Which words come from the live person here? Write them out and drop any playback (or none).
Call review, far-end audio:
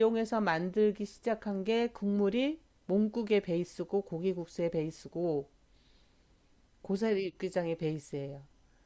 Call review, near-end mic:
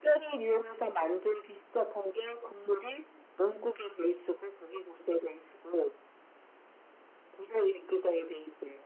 none